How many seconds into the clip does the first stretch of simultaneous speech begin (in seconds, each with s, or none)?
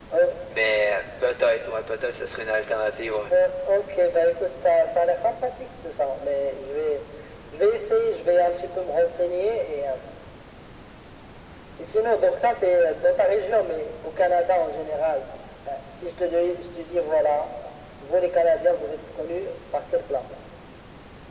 none